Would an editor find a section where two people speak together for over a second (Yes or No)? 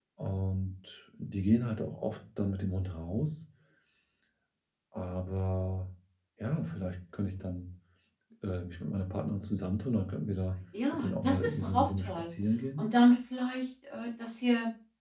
Yes